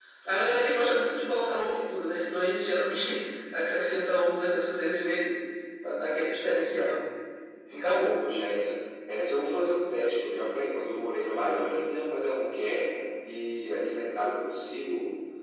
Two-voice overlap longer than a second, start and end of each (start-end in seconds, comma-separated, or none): none